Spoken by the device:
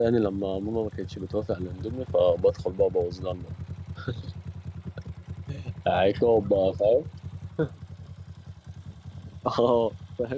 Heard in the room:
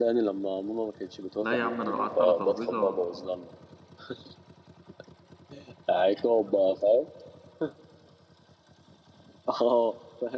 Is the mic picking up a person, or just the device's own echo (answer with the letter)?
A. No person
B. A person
B